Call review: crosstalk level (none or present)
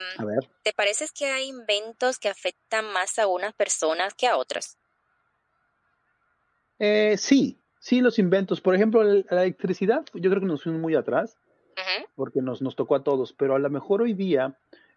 none